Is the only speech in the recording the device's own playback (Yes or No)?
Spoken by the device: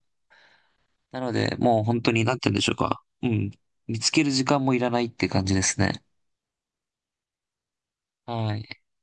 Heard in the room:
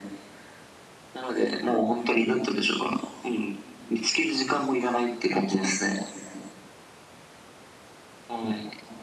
Yes